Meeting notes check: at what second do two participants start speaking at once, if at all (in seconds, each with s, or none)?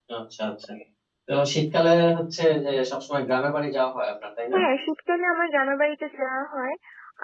none